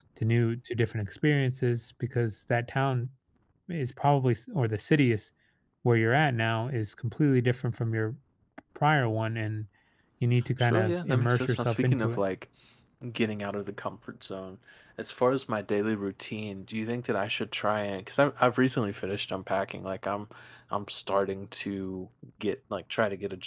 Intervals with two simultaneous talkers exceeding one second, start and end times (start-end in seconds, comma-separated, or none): 10.6-12.2